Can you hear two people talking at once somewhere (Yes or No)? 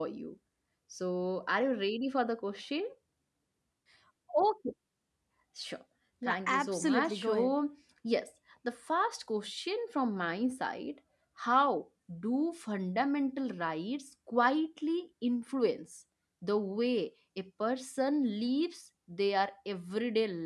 Yes